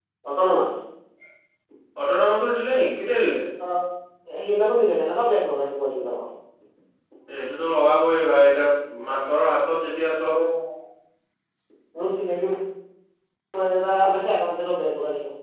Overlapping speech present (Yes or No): No